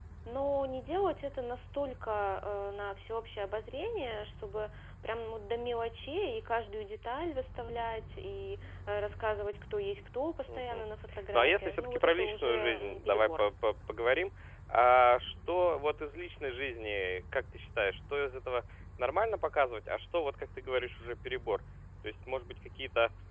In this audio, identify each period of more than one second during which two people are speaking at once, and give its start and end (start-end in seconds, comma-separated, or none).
11.3-13.4